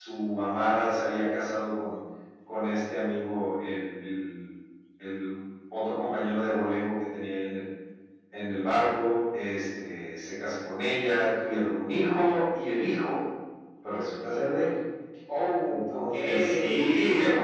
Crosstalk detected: Yes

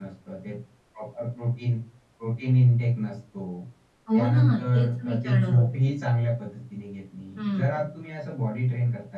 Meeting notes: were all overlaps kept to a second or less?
No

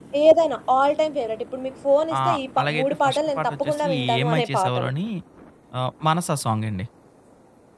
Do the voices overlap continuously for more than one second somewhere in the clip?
Yes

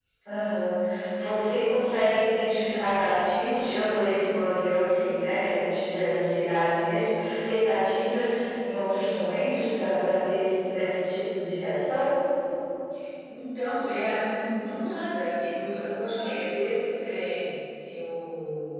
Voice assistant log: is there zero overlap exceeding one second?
Yes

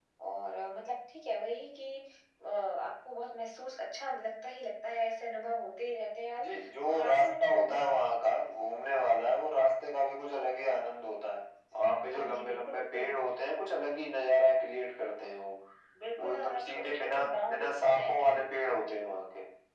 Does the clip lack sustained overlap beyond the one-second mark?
No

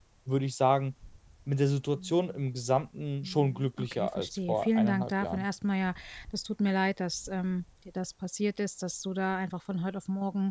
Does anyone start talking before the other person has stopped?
Yes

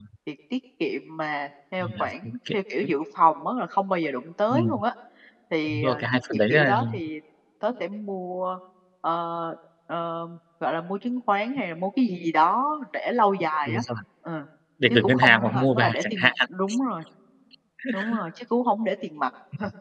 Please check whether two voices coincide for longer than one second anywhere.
Yes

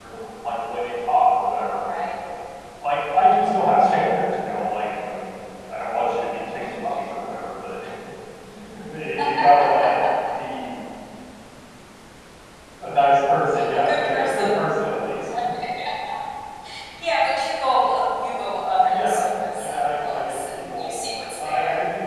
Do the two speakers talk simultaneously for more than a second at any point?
Yes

